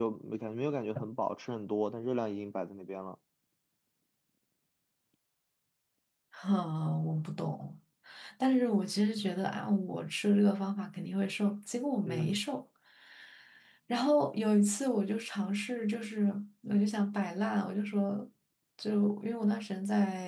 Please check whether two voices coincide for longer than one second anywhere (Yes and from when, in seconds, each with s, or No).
No